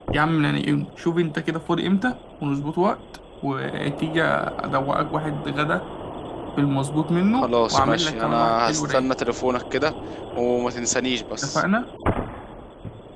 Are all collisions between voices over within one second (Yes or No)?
No